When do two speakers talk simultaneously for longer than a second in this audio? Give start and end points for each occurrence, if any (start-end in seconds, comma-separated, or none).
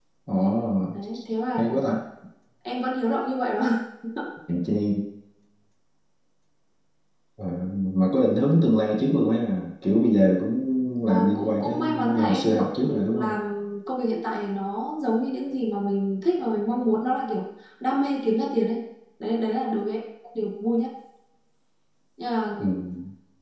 11.1-13.4